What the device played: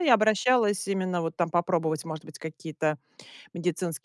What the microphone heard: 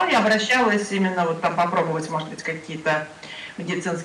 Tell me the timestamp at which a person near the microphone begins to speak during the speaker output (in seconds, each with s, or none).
none